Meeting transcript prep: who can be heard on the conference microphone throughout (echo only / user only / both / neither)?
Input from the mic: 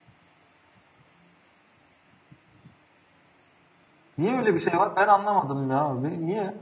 user only